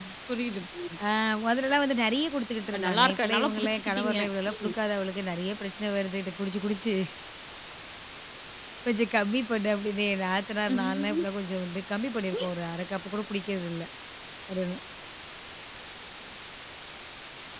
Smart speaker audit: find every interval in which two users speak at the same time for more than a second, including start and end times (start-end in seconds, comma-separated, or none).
2.7-4.2